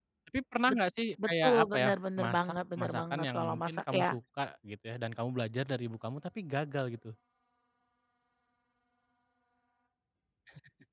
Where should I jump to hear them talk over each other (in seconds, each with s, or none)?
1.2 s